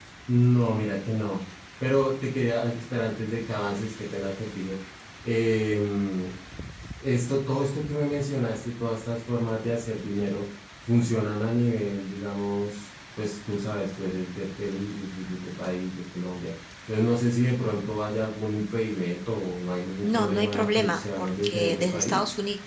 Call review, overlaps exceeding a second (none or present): present